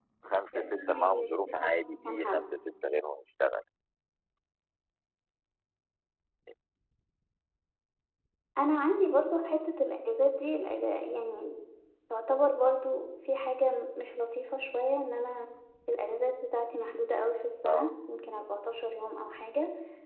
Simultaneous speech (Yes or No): Yes